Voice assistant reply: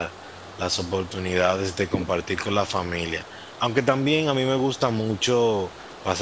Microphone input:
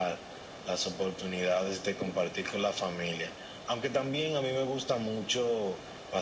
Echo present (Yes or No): Yes